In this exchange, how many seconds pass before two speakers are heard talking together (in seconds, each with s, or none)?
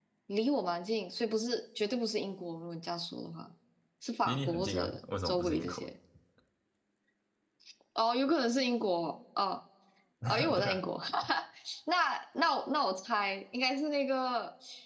4.2 s